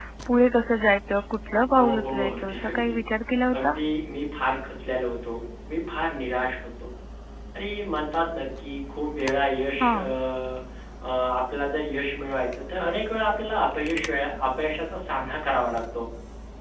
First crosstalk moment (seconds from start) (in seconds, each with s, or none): 1.8 s